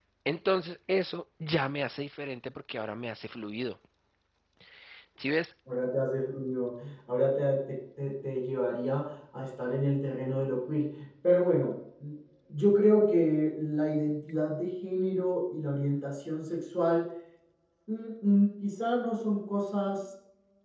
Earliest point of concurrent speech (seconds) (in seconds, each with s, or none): none